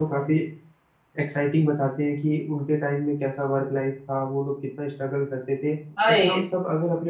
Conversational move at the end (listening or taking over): listening